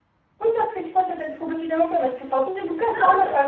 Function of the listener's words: listening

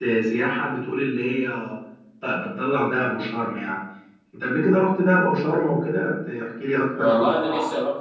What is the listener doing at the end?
taking over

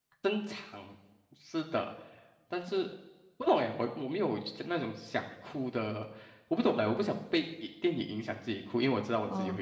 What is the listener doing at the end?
taking over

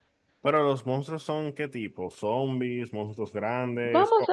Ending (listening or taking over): taking over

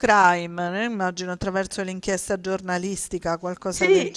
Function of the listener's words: taking over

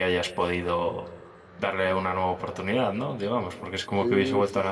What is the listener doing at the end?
taking over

